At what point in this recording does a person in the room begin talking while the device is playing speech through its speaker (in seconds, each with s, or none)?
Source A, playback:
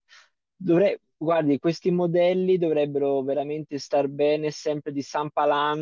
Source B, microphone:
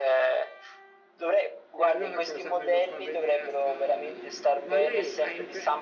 1.7 s